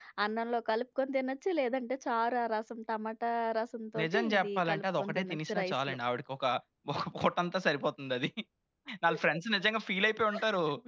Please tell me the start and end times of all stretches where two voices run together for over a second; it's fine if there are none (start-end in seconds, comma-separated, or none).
4.0-6.0